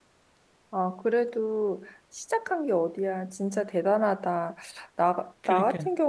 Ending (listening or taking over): listening